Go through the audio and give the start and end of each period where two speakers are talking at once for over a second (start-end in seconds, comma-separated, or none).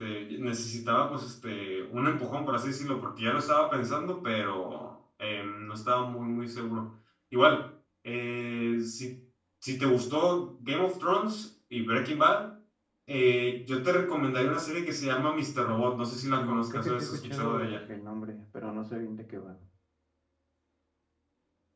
16.4-17.8